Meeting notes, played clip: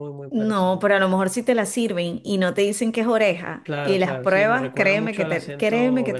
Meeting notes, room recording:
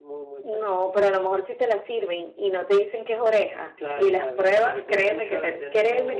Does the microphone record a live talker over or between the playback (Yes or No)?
No